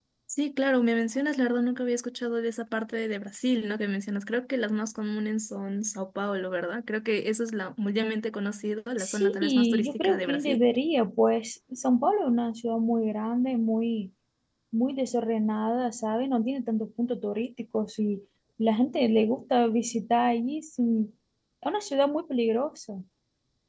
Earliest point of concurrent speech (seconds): 9.0 s

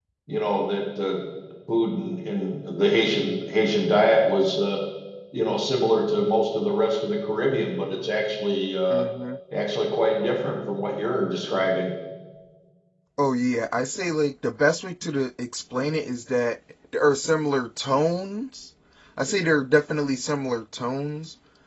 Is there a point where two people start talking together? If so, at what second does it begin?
none

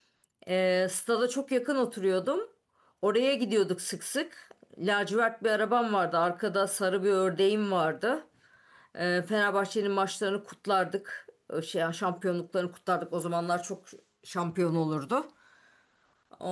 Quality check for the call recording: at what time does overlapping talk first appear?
none

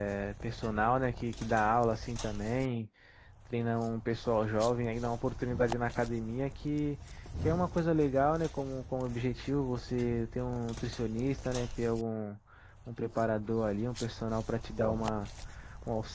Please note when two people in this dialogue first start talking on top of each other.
none

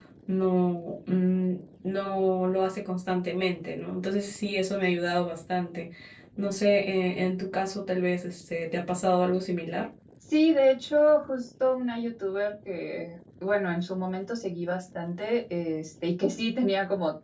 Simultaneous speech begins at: none

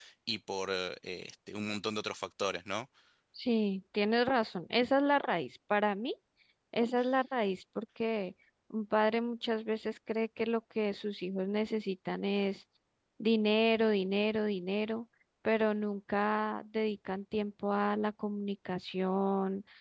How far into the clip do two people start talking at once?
none

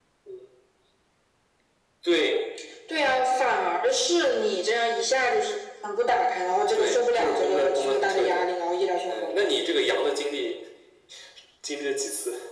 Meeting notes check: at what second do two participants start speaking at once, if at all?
6.7 s

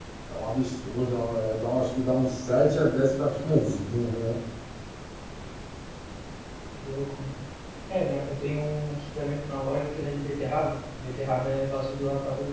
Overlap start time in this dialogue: none

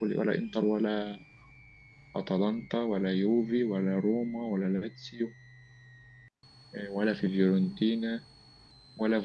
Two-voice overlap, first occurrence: none

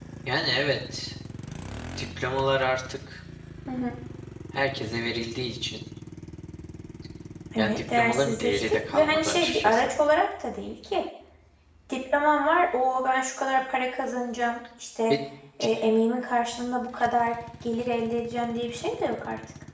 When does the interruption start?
7.6 s

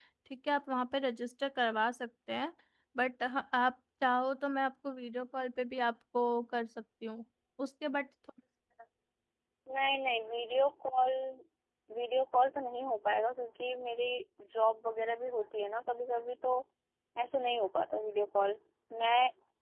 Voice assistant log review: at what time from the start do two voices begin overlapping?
none

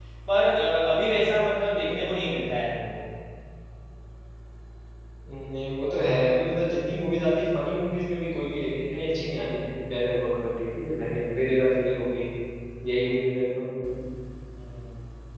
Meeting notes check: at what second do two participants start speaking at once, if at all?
none

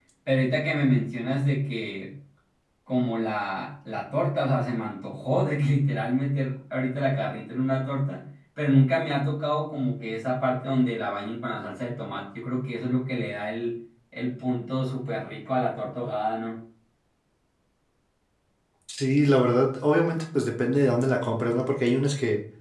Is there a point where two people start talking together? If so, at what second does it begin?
none

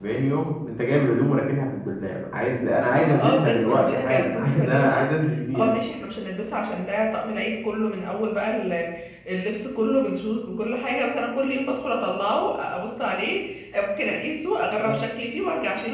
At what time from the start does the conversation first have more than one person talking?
2.9 s

